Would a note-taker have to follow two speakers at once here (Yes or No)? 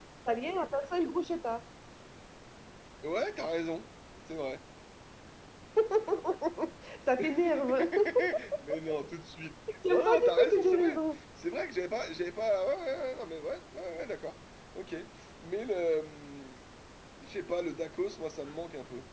Yes